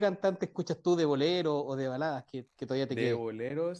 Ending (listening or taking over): taking over